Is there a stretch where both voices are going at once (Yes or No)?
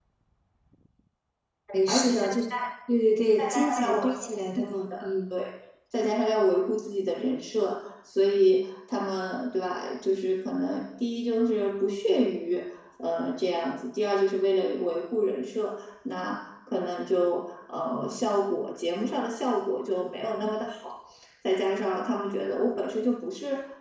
Yes